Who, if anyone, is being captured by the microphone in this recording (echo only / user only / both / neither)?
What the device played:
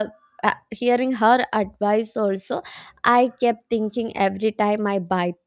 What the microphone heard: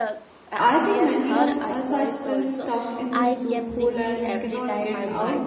both